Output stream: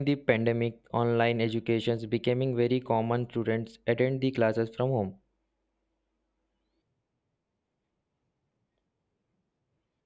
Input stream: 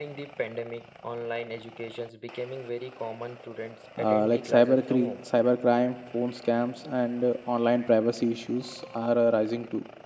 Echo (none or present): present